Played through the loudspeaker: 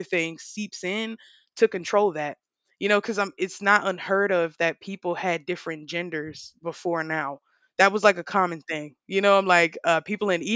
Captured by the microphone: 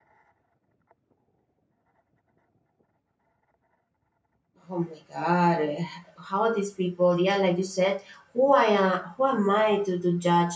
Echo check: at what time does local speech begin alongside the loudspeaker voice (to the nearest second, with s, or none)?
5 s